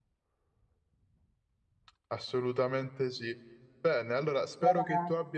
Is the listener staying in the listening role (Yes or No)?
Yes